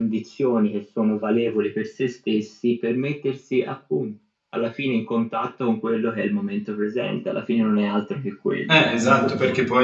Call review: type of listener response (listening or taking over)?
taking over